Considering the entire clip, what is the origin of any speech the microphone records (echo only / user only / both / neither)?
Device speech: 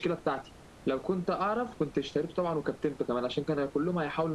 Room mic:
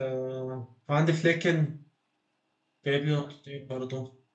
user only